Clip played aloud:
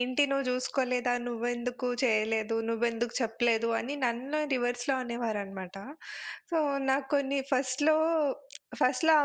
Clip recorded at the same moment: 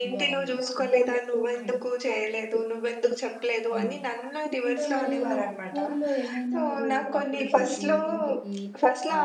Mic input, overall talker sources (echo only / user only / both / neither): both